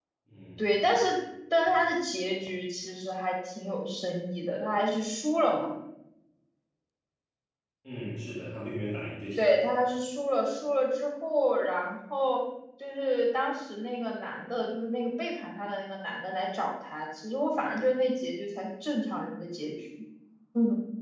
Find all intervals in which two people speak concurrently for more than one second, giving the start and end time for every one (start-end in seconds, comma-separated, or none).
none